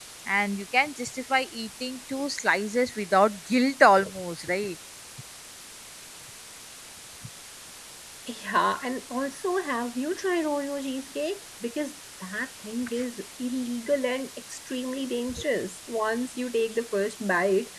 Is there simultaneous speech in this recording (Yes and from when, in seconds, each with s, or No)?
No